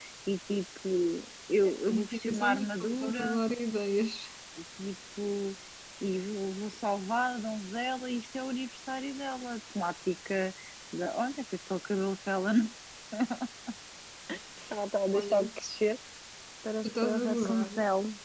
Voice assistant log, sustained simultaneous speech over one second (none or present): present